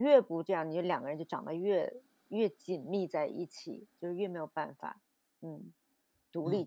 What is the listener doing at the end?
taking over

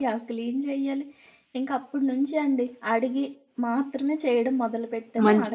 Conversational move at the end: taking over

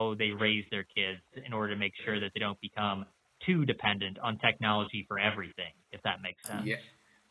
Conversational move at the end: taking over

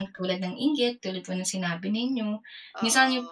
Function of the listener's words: listening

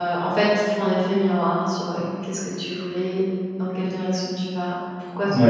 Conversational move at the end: taking over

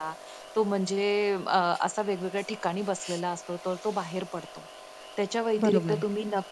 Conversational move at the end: listening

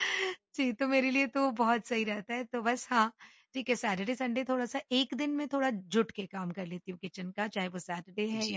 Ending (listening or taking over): taking over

